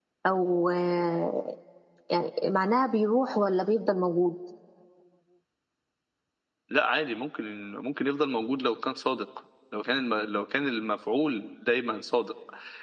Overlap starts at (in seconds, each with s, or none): none